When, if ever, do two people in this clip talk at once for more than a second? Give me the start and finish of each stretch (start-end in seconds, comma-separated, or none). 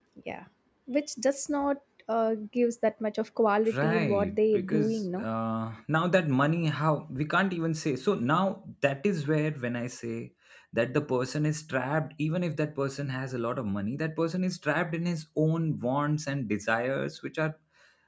3.8-5.2